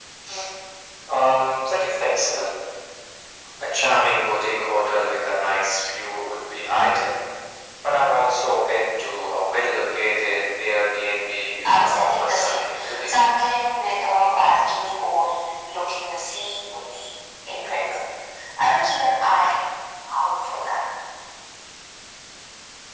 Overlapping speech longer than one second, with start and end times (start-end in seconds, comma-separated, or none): 11.6-13.1